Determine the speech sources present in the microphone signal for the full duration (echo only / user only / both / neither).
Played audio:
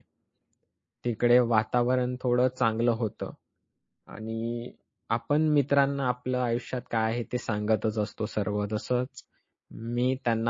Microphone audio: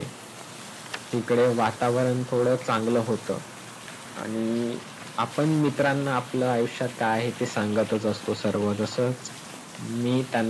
echo only